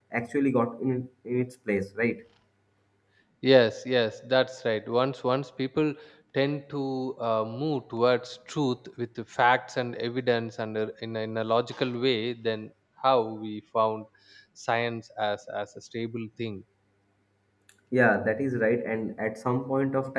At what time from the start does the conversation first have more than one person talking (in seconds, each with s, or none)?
none